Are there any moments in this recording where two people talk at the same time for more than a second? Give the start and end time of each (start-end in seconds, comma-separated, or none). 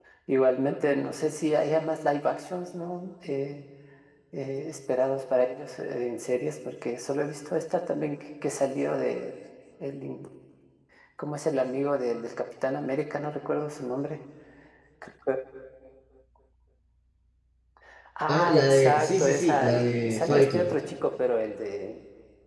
18.3-20.8